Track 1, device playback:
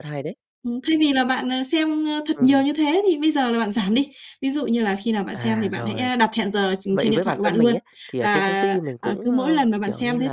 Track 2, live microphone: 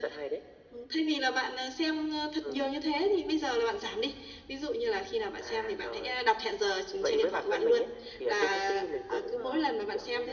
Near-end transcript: none

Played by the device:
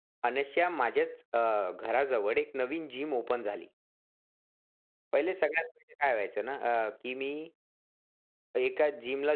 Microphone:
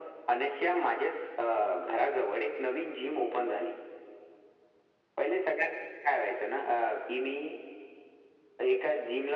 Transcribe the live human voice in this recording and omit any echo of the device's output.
none

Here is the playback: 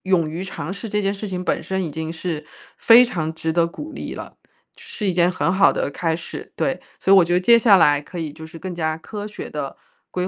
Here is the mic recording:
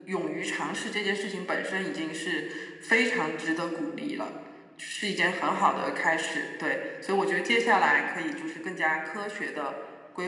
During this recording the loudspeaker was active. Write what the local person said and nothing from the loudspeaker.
none

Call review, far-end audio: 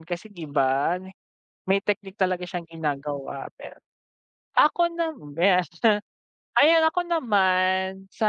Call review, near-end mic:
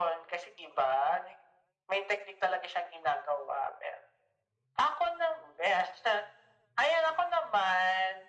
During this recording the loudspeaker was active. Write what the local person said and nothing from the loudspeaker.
none

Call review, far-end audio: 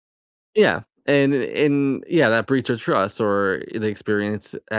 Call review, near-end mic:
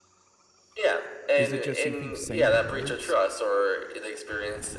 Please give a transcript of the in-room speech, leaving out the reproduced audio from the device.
Is it just you think saying the words?

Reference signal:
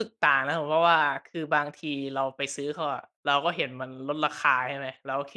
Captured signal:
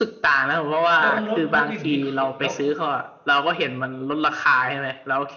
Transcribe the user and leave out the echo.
แล้ว เออ แล้ว แล้วอย่างงี้คือ แล้ว

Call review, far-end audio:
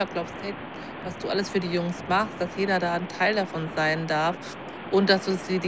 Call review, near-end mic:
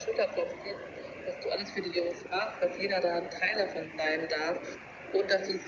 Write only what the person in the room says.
none

